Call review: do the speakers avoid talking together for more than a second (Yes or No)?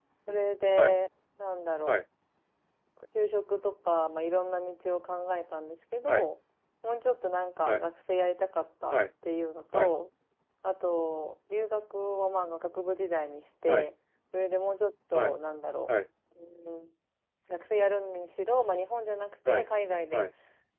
Yes